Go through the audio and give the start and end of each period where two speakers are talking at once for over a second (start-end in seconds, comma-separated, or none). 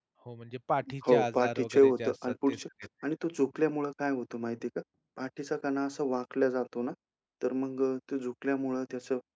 1.1-2.6